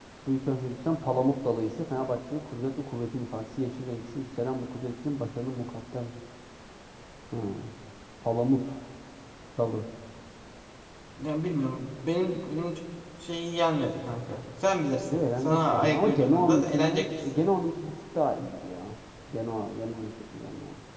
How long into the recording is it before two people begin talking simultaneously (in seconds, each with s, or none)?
15.1 s